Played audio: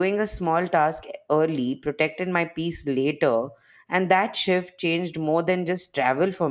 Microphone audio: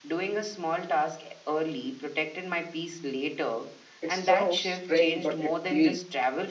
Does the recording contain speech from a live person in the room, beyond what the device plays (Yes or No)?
Yes